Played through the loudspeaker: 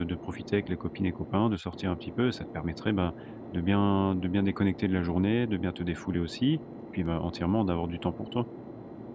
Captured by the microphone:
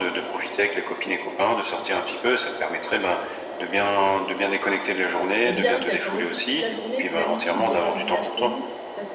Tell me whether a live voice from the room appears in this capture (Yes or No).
Yes